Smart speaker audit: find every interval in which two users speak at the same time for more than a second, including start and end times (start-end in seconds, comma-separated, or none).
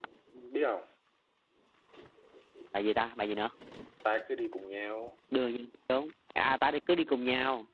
none